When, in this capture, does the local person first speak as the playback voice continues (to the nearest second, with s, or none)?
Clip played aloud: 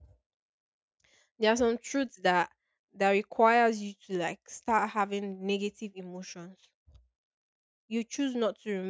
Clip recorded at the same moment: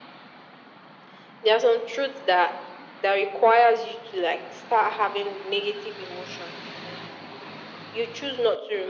none